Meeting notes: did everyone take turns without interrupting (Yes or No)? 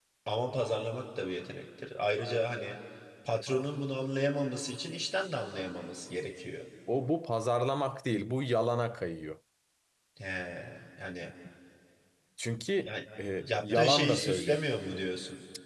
No